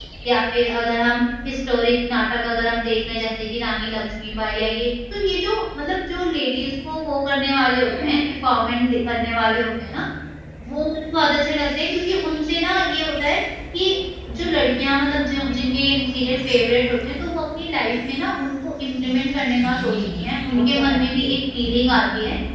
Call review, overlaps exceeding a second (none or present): present